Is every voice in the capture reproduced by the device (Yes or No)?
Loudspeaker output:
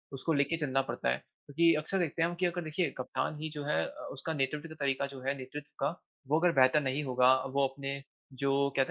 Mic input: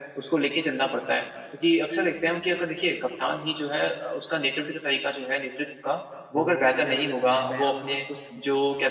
No